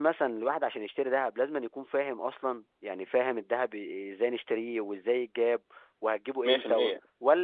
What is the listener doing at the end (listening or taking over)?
listening